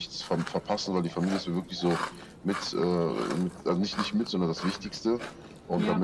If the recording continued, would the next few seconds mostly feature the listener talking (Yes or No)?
No